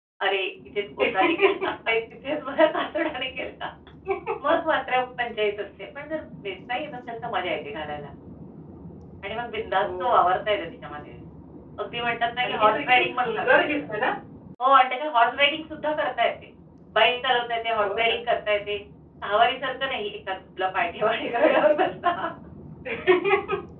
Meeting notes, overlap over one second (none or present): present